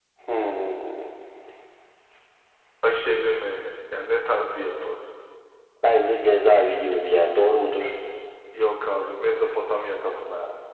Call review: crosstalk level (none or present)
none